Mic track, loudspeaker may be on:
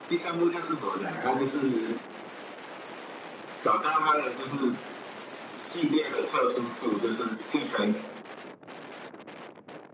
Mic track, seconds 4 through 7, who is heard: echo only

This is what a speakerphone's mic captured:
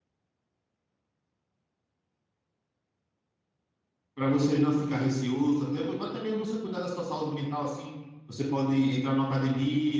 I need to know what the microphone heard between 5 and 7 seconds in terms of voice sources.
user only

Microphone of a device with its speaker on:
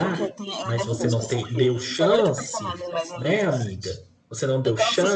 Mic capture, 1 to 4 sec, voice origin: both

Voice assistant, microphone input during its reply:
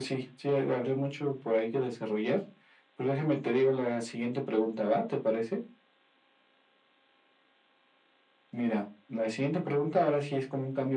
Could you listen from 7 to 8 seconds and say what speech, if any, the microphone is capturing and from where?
neither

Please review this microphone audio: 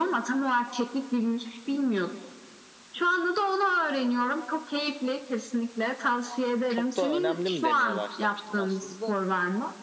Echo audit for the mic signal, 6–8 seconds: both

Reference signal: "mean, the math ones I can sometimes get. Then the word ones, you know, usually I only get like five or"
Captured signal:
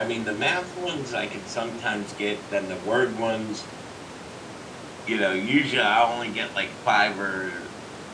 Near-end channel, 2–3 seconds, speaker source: echo only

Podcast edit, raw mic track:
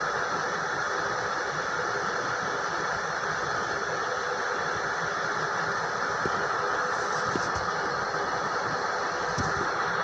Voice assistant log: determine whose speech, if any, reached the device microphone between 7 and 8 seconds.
neither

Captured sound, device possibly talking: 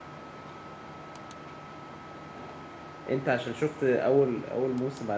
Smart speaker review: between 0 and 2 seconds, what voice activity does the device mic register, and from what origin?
neither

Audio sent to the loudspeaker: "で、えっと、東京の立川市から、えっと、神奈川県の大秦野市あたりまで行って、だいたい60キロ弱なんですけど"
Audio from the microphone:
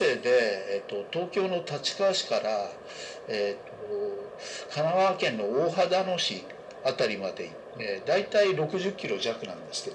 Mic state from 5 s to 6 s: echo only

